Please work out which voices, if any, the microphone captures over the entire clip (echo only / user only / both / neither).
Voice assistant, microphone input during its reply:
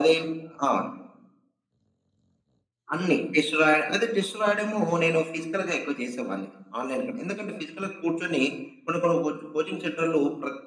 echo only